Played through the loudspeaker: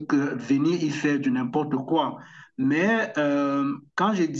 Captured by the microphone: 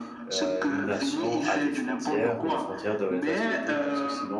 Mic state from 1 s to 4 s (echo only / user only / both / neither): both